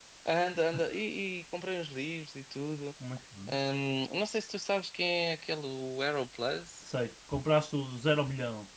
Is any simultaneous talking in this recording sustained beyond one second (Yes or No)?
No